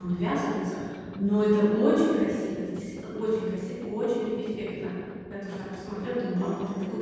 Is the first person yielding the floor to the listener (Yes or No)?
Yes